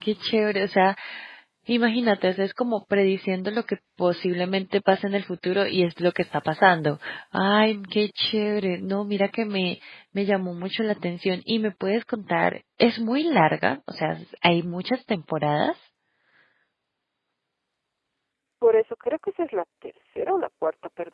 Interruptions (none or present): none